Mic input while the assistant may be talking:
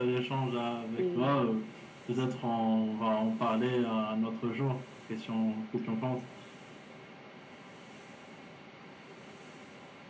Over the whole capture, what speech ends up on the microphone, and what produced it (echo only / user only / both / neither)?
both